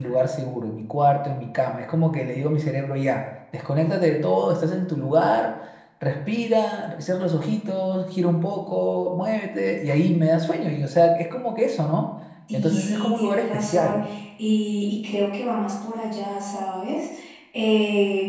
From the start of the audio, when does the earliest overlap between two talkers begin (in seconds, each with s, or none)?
12.5 s